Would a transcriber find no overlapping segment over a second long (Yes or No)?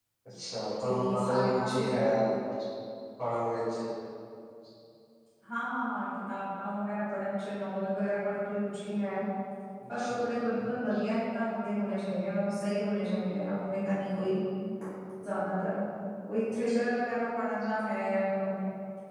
No